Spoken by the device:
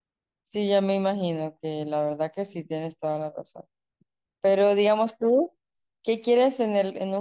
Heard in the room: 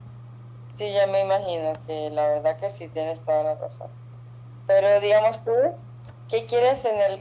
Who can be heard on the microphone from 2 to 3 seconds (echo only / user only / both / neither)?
echo only